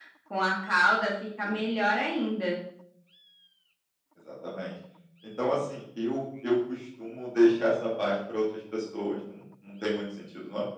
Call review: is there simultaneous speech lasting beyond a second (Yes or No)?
No